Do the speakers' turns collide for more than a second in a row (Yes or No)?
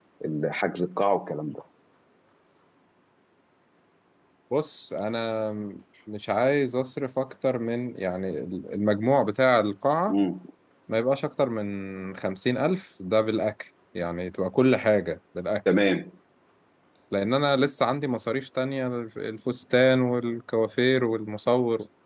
No